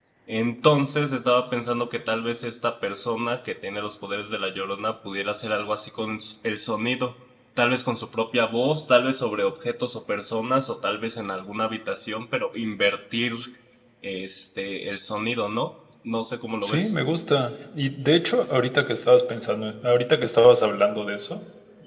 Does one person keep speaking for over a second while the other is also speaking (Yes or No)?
No